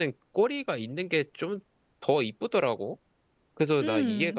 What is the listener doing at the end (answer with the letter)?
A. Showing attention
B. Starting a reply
A